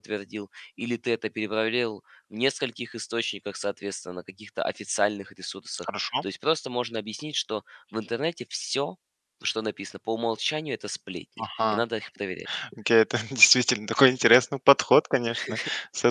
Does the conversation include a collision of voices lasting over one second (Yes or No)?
No